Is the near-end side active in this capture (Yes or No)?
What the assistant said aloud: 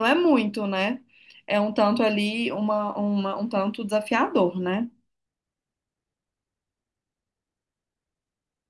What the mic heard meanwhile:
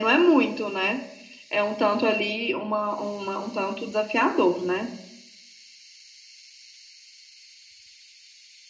No